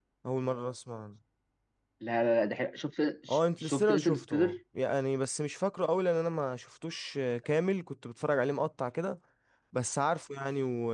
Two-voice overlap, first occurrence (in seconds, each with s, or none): 3.3 s